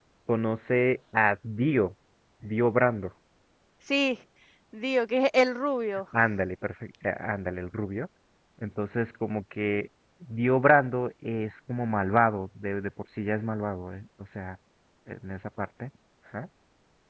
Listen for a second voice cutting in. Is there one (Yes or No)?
No